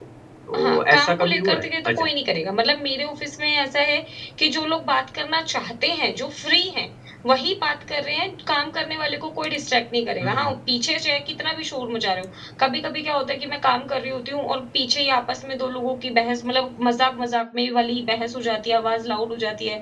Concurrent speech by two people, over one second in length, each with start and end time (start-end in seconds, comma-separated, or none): 0.6-2.0